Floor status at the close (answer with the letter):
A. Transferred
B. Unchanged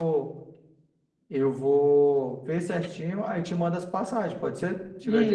A